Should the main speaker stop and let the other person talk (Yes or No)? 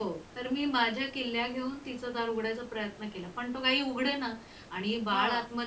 No